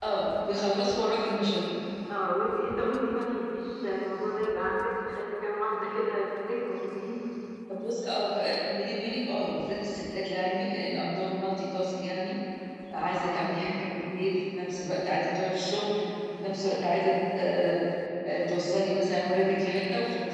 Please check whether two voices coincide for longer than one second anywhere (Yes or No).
No